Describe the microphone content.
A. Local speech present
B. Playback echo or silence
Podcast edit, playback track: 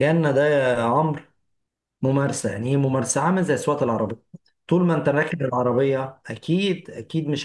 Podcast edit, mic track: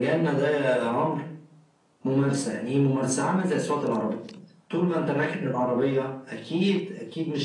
B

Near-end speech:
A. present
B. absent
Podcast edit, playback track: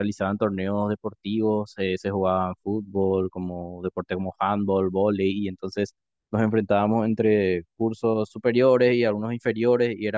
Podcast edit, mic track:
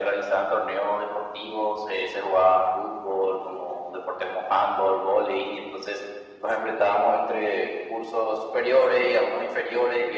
B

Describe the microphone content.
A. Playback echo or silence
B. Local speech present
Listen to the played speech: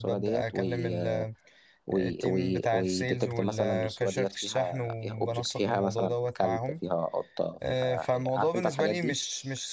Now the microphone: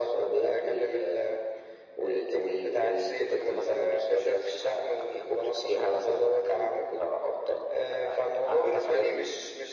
A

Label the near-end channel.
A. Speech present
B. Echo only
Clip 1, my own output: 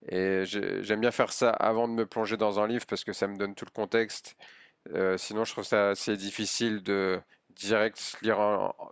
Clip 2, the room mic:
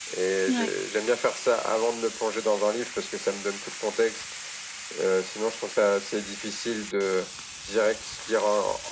A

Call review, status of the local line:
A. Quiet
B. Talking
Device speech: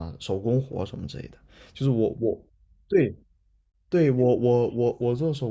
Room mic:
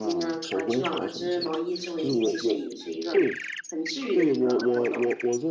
B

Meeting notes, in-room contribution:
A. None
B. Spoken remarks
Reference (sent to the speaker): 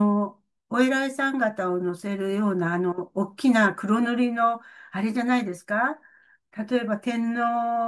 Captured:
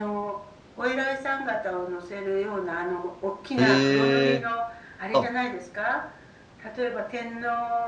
B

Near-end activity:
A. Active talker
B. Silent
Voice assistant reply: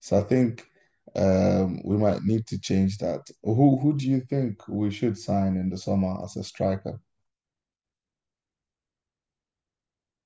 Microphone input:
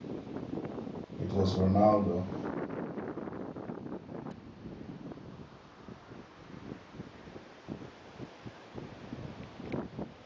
A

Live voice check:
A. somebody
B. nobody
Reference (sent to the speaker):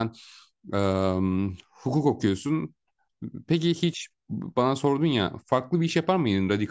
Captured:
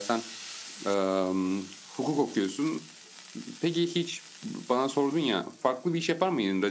B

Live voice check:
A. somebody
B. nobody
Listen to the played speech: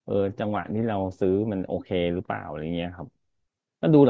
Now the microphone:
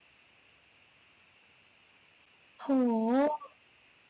A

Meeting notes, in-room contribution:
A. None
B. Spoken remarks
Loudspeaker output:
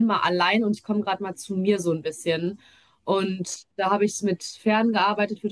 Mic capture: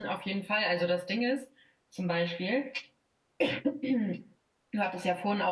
B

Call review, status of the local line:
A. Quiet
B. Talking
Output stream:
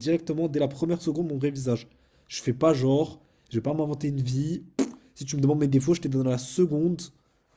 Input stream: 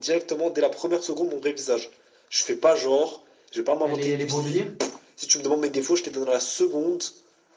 B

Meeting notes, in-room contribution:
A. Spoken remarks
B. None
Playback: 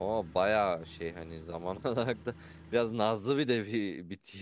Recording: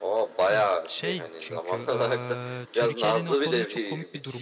A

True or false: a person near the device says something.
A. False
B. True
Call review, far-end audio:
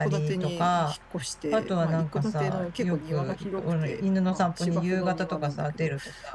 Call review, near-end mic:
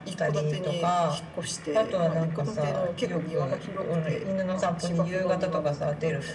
A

